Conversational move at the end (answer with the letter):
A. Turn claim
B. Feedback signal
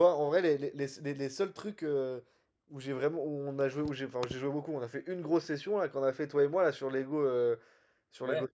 B